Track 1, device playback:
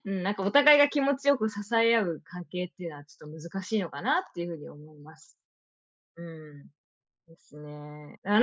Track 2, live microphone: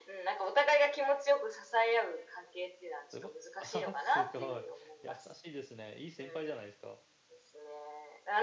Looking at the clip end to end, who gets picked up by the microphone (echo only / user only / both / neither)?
both